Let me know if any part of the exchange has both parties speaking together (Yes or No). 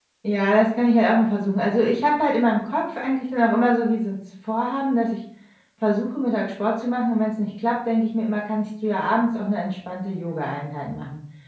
No